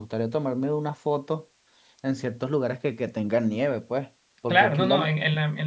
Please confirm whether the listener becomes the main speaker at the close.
Yes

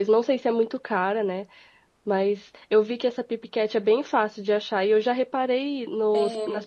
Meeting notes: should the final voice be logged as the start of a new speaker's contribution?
No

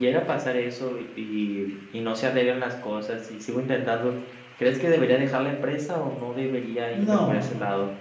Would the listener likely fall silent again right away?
No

